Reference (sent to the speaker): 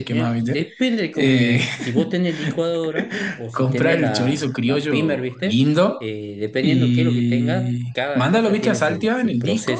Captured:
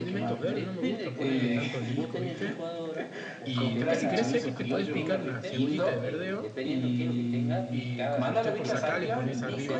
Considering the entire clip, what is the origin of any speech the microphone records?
both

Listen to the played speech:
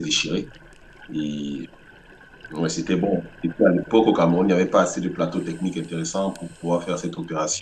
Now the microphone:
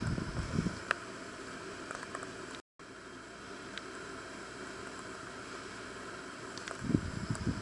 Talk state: neither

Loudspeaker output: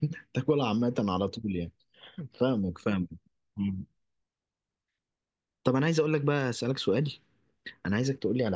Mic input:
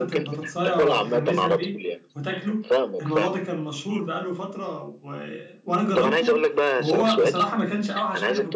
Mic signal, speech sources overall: both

